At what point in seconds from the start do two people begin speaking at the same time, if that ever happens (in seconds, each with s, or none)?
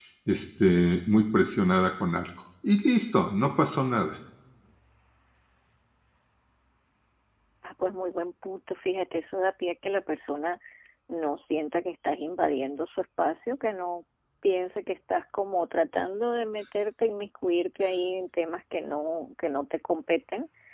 none